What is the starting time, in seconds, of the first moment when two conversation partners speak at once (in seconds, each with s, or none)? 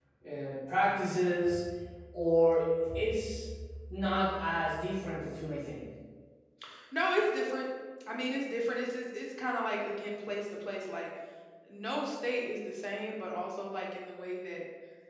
none